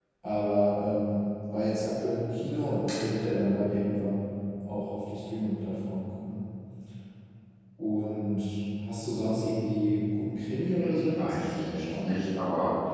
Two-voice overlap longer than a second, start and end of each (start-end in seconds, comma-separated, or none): 10.8-12.1